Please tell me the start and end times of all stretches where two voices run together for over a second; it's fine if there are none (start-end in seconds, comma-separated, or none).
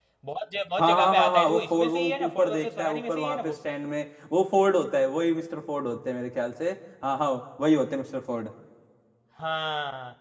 0.8-3.6